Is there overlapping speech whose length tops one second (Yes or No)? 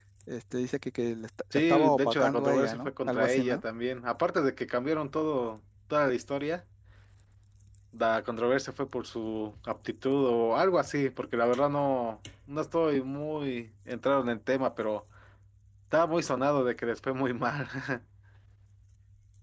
Yes